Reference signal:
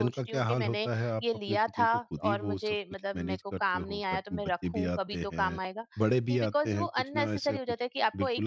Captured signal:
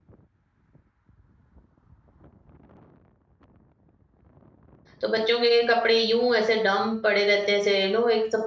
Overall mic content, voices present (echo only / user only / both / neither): user only